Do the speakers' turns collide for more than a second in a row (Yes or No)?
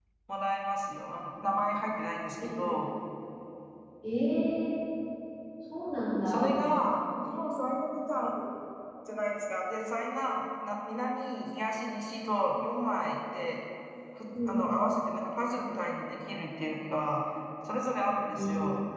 No